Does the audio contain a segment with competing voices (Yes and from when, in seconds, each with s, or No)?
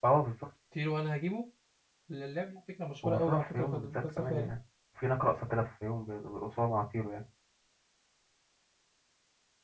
Yes, from 3.0 s